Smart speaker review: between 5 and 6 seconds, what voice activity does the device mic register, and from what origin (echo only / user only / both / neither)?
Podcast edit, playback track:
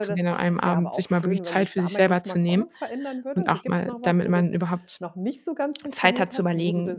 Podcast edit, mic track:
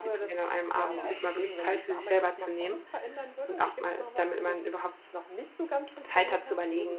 echo only